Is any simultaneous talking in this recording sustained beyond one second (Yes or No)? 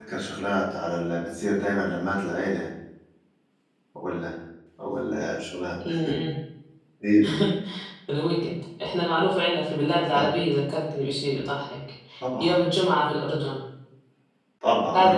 No